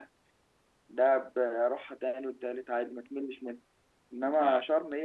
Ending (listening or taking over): listening